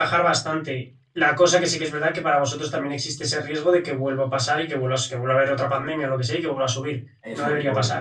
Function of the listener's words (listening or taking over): taking over